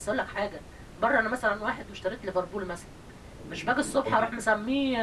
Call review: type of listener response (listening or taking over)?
listening